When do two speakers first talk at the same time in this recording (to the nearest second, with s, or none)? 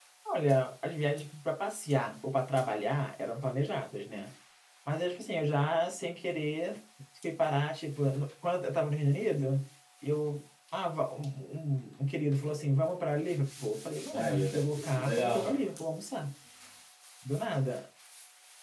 14 s